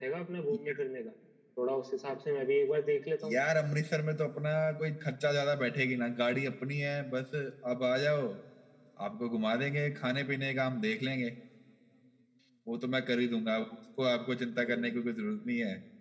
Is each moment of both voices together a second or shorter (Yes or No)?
Yes